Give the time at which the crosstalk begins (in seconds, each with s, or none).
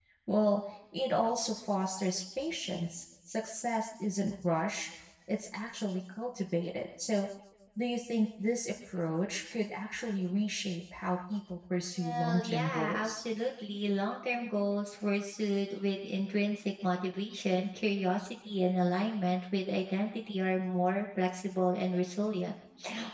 12.0 s